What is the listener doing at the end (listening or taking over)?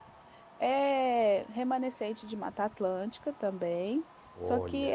listening